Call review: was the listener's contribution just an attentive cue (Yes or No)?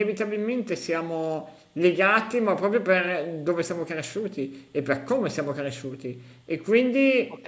Yes